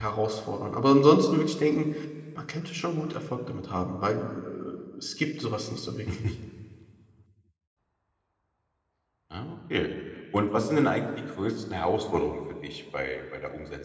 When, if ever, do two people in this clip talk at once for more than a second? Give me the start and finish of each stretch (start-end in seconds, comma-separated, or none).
none